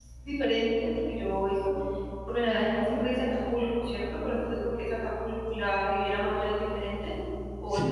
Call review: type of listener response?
taking over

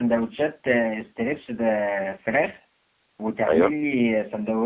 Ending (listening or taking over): listening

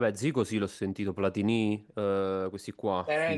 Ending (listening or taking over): taking over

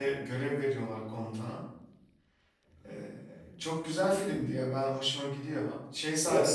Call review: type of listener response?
listening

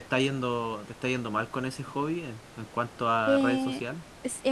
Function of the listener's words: taking over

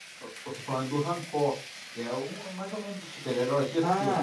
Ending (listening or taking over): taking over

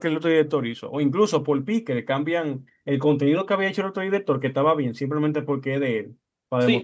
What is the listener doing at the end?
taking over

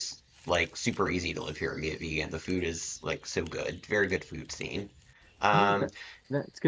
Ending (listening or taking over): taking over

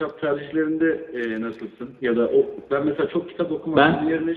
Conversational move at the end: listening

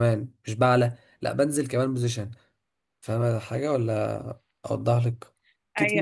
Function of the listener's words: taking over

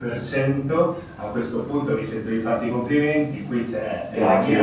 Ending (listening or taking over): listening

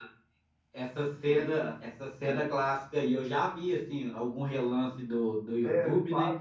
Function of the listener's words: taking over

